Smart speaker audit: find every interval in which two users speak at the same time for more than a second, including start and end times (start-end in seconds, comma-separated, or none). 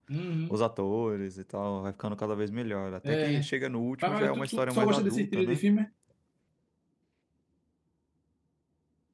4.0-5.6